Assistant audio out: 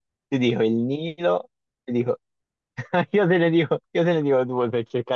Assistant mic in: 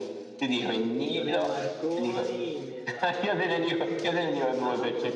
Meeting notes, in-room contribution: present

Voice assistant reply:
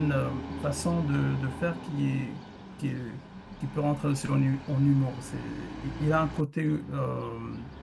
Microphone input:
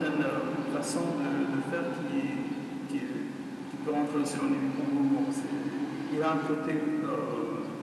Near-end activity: none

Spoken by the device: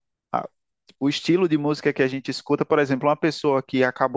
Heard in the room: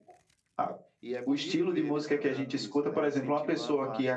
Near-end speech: present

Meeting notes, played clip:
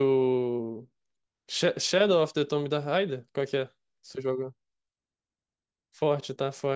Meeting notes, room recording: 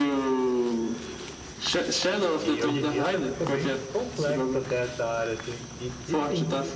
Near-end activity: present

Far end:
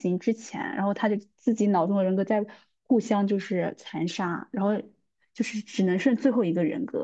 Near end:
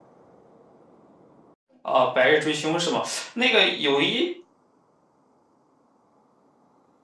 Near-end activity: present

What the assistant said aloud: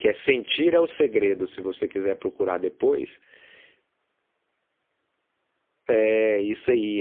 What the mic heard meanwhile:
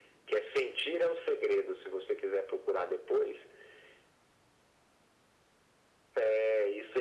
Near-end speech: none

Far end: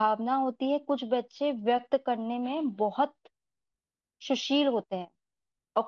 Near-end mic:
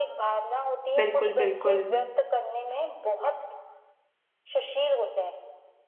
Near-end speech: present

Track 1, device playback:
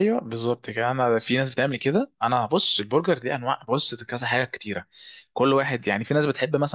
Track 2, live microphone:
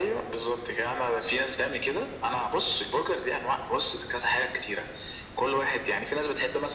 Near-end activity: none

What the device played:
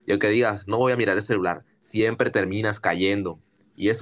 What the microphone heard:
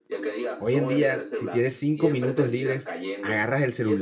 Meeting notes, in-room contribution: present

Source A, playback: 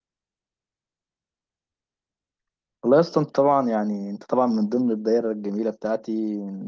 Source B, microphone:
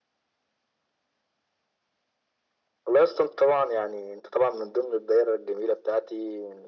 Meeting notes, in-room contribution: none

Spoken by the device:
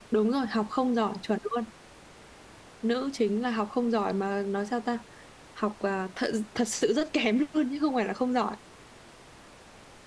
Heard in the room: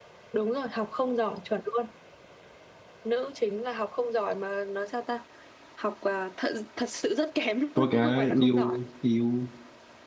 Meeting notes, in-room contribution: present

